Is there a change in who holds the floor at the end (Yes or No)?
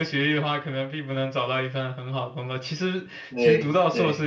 No